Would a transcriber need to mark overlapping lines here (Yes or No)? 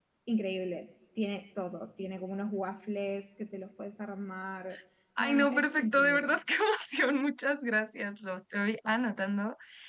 Yes